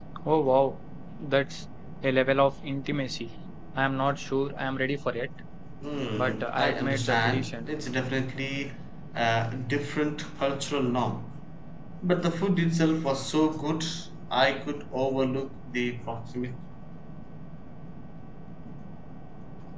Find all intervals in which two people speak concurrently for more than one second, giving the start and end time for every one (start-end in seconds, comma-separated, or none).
6.2-7.7